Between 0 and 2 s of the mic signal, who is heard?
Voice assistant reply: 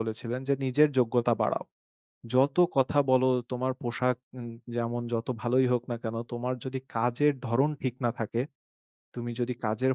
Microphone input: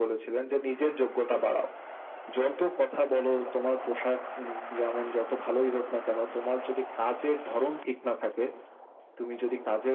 echo only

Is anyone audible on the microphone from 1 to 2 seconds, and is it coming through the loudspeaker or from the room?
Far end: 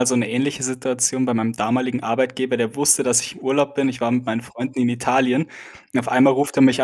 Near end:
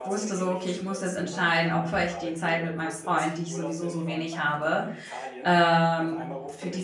both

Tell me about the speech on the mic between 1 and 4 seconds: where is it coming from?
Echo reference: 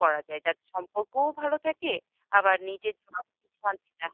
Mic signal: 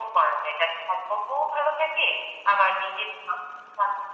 echo only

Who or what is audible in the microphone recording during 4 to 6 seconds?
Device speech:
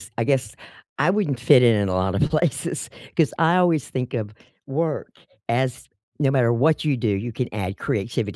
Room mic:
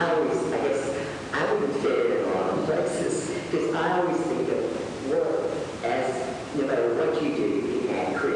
echo only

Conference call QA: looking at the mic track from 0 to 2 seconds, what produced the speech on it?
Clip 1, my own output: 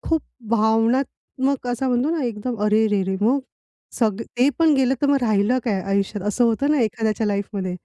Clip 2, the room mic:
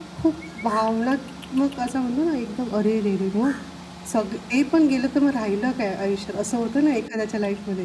echo only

